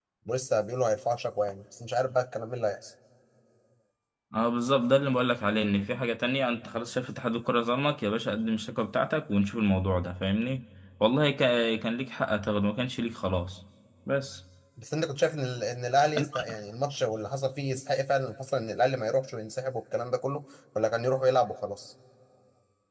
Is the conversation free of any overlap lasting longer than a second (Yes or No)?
Yes